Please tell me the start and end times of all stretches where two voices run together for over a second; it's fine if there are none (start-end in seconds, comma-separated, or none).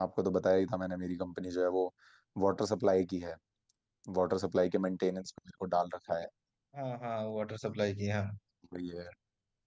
none